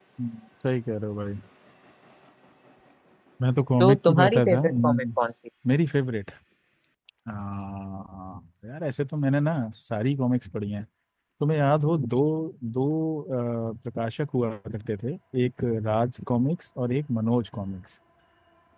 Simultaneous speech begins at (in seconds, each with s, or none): 3.8 s